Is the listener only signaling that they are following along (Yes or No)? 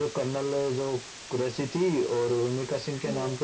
Yes